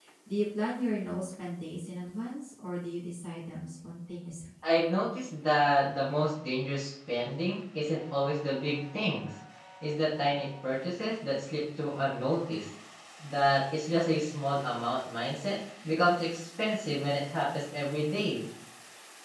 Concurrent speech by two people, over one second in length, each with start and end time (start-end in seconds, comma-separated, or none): none